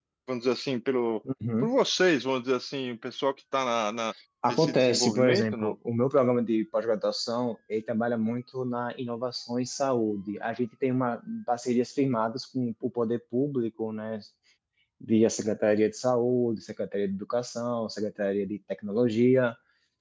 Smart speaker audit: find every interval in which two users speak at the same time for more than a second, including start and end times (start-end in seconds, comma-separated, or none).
4.5-5.8